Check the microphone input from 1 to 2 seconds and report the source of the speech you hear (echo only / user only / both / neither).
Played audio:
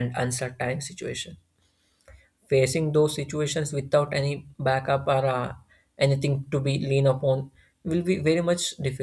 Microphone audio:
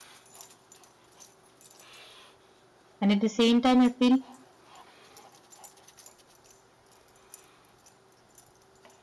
neither